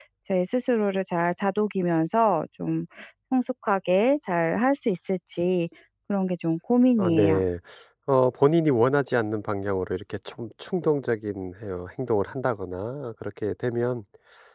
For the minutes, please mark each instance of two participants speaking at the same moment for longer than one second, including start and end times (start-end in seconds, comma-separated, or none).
none